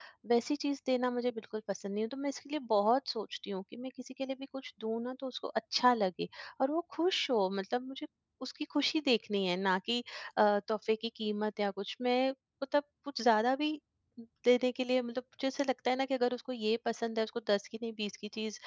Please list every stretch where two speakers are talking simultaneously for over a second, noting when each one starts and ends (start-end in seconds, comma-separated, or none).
none